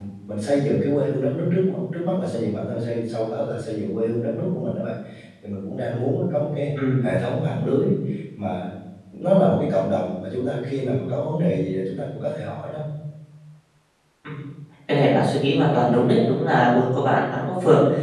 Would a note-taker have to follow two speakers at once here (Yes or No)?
No